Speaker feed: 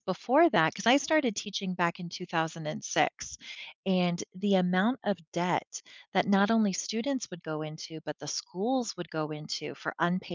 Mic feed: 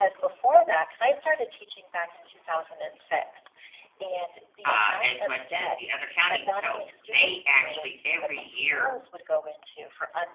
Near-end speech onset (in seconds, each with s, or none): 4.7 s